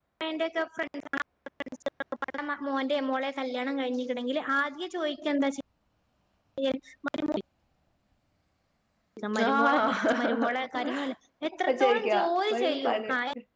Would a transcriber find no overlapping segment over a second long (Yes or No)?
No